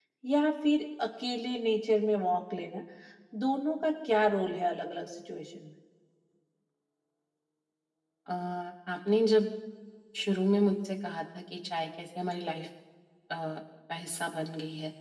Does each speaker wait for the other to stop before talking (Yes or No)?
Yes